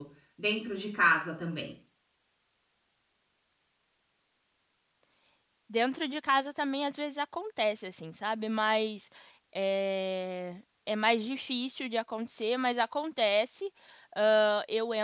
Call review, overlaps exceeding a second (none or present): none